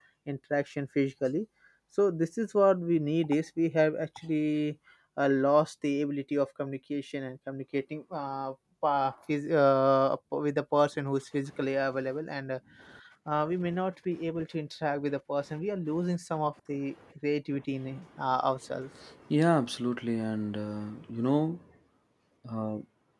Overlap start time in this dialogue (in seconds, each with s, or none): none